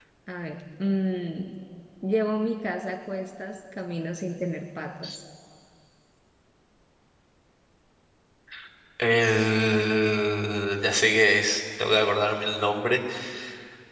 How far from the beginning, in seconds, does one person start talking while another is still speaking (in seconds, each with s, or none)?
none